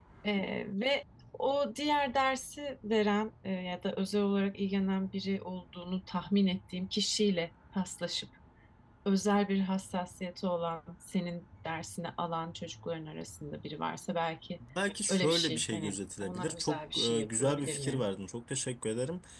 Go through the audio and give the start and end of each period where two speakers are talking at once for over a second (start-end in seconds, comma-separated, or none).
15.1-18.0